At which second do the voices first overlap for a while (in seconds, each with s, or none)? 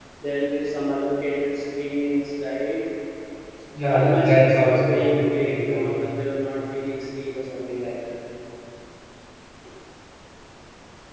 3.9 s